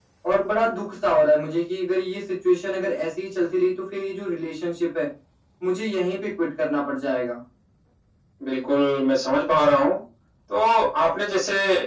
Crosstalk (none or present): none